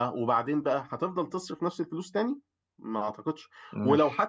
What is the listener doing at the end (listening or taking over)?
listening